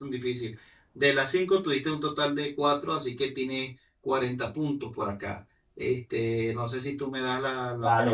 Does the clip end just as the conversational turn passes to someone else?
Yes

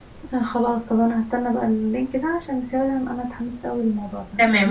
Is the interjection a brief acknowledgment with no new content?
No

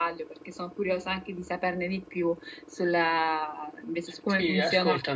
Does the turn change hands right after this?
Yes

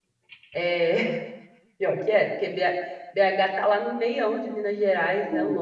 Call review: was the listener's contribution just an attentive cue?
No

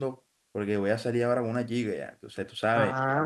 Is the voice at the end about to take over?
Yes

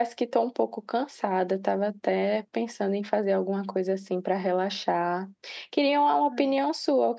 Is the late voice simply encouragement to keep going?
Yes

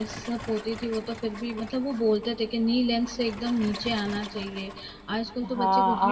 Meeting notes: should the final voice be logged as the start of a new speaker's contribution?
Yes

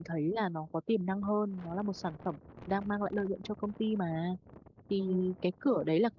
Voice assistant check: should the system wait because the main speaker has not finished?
Yes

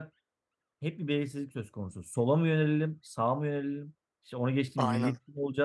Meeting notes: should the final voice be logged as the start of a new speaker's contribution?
No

